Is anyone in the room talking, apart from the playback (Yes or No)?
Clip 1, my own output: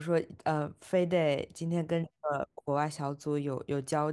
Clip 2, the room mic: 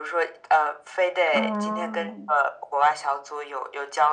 Yes